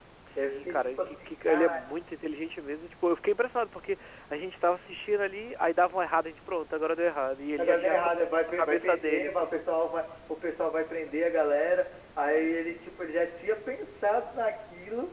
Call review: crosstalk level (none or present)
present